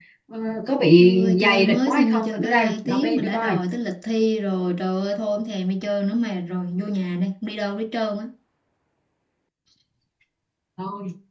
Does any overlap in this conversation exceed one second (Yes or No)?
Yes